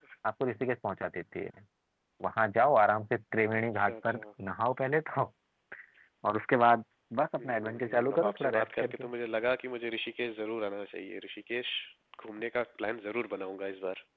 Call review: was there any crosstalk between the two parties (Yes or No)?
Yes